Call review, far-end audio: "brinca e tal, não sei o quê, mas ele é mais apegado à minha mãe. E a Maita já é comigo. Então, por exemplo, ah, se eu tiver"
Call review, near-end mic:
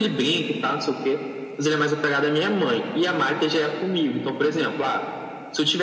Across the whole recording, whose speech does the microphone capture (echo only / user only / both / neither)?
echo only